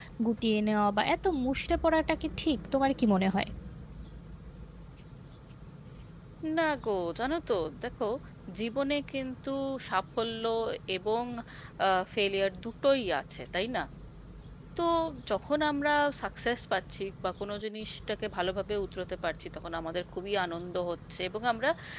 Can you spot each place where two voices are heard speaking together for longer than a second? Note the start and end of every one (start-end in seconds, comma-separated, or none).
none